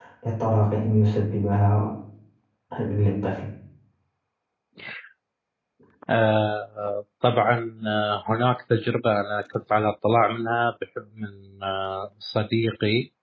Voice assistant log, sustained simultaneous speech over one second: none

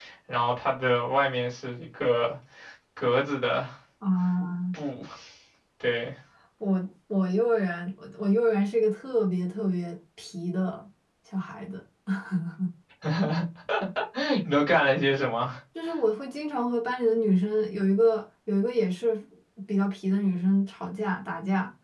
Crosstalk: none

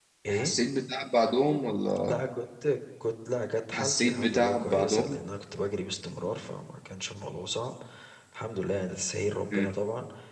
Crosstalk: present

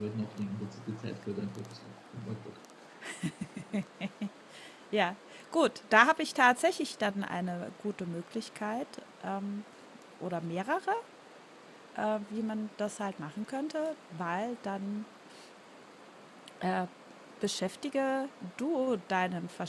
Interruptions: none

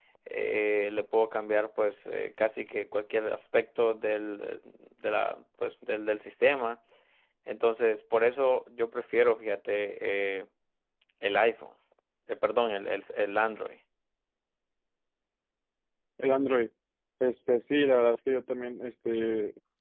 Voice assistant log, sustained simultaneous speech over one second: none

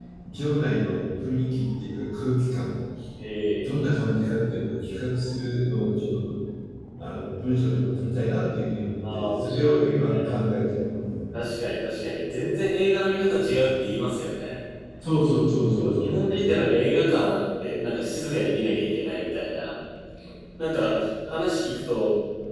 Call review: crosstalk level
present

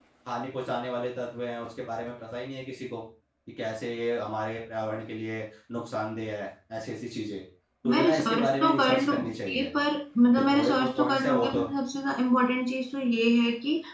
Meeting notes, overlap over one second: present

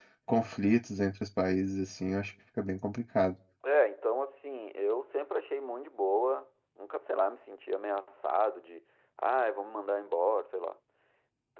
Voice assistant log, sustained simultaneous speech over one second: none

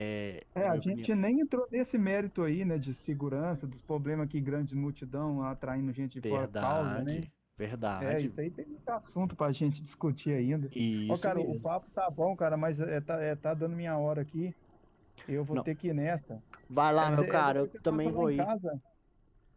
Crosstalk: present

